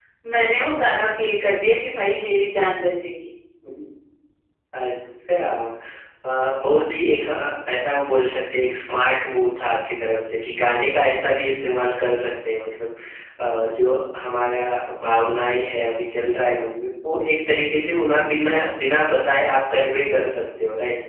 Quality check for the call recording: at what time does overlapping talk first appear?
none

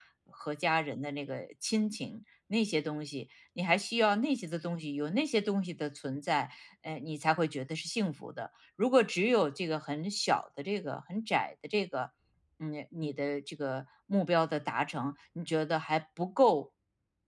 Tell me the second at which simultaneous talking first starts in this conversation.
none

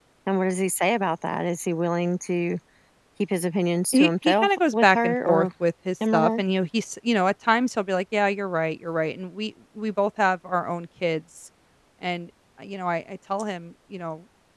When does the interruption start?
3.9 s

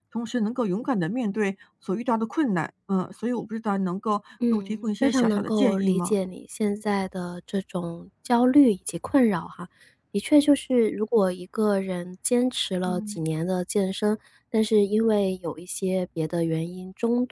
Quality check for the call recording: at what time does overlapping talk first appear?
4.5 s

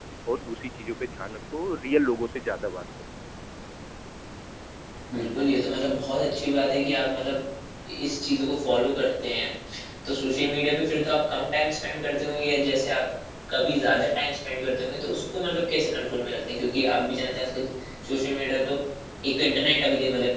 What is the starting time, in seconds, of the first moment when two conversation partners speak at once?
none

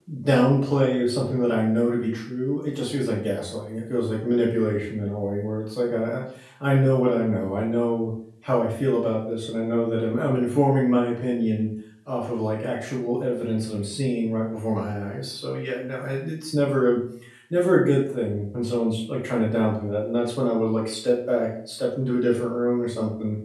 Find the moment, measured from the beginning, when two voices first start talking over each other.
none

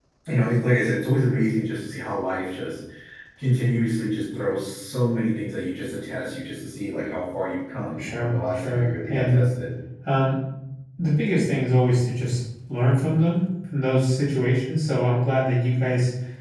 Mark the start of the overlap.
8.0 s

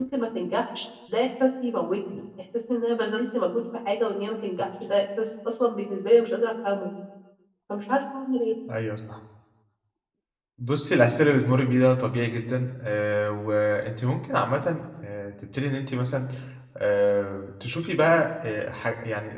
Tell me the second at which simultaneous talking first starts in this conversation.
none

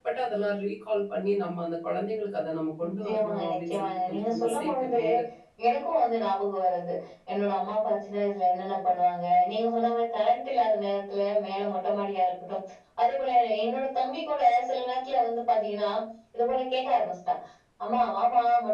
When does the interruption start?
3.0 s

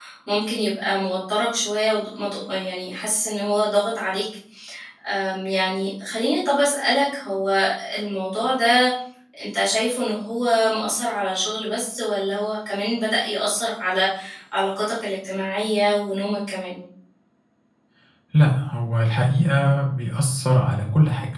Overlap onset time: none

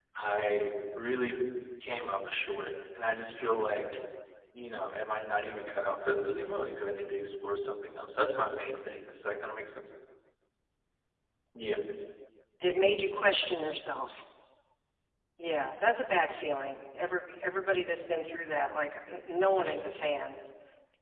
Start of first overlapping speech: none

